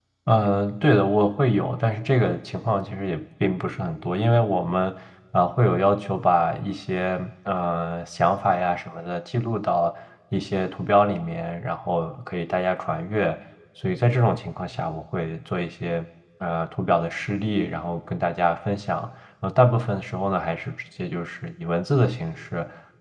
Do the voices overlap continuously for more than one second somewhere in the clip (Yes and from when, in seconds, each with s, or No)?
No